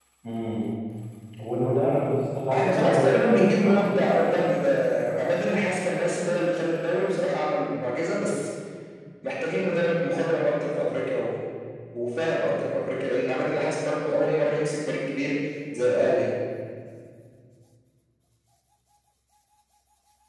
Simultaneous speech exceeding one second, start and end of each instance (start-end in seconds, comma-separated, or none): 2.5-4.5